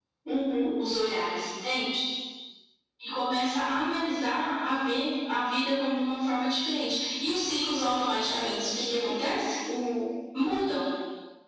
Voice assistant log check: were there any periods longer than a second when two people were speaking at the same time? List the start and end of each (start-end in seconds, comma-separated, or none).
8.3-9.5